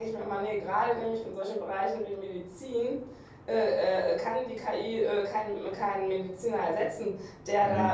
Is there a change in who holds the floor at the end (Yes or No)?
No